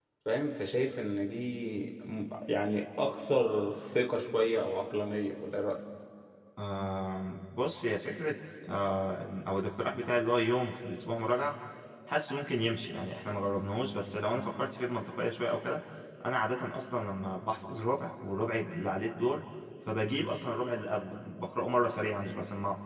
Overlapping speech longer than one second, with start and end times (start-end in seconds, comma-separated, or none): none